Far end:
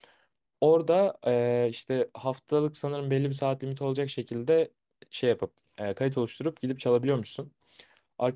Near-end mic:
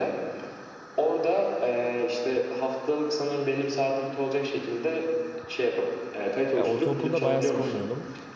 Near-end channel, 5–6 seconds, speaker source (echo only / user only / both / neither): echo only